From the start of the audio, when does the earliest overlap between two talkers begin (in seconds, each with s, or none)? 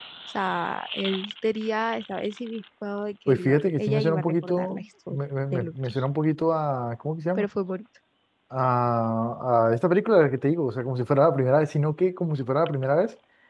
3.3 s